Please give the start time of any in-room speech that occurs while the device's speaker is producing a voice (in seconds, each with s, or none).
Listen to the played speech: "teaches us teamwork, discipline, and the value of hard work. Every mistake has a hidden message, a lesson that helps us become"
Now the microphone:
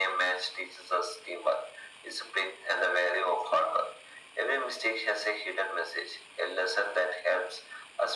none